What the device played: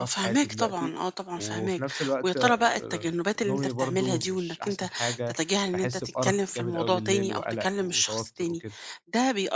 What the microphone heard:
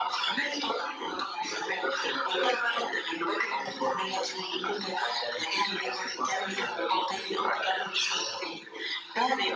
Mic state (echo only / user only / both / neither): echo only